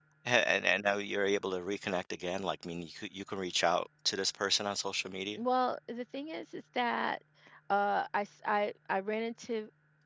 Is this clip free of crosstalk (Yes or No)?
Yes